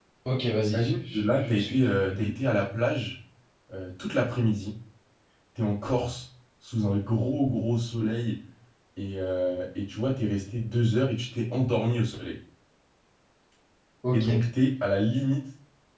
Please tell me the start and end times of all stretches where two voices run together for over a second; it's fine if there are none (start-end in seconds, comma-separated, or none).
0.6-2.2